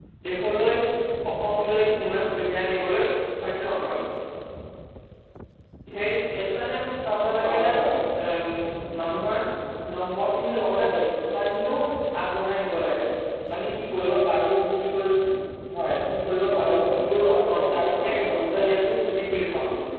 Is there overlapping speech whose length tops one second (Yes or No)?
Yes